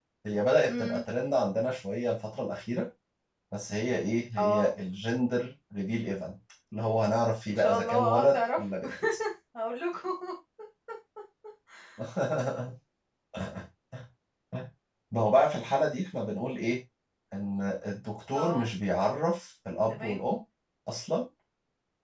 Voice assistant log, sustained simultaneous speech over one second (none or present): present